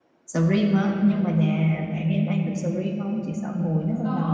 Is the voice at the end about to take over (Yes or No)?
Yes